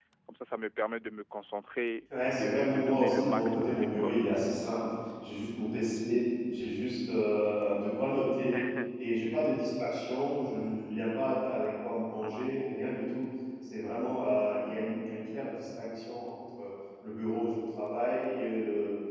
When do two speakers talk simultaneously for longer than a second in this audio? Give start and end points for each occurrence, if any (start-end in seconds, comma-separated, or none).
2.2-4.1